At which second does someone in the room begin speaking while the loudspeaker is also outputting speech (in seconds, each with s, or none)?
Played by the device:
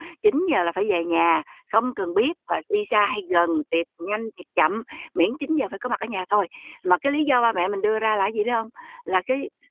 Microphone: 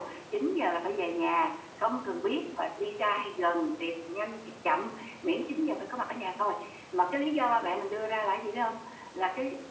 none